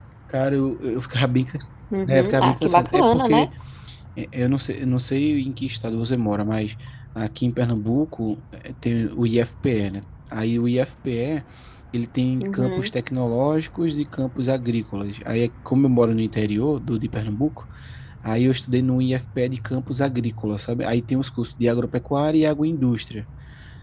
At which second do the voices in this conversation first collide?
2.1 s

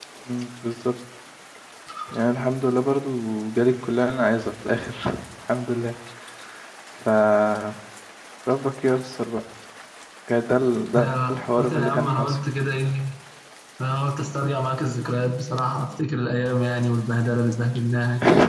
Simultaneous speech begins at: 11.0 s

